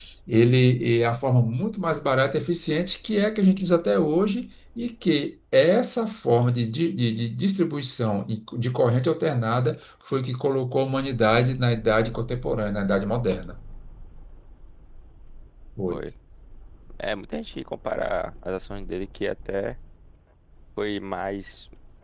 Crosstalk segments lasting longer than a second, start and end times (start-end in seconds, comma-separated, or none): none